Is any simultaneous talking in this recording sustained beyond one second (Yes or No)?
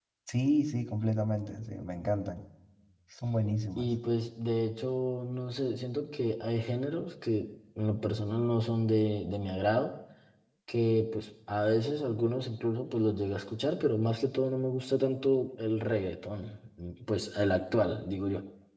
No